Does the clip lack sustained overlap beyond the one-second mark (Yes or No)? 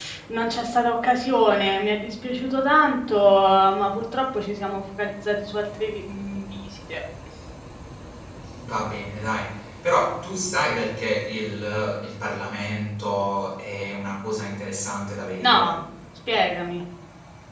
Yes